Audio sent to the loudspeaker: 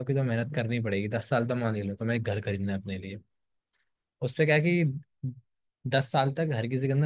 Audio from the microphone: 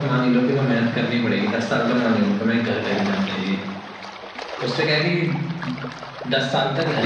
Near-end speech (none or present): none